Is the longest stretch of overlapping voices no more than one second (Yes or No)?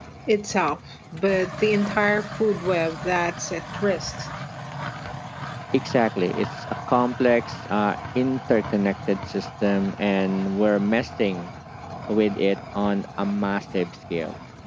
Yes